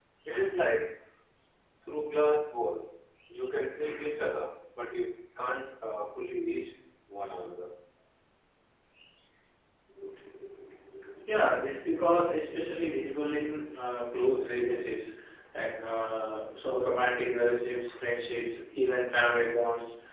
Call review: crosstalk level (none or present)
none